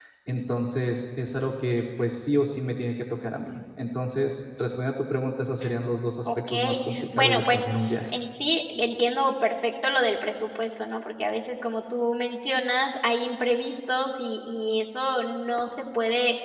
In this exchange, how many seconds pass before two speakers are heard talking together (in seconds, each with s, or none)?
5.6 s